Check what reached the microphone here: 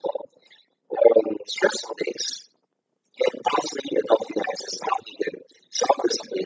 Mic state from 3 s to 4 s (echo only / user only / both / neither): echo only